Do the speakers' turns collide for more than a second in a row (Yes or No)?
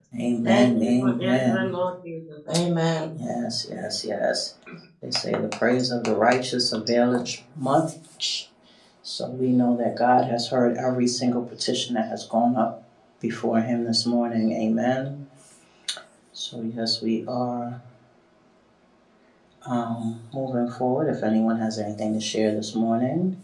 Yes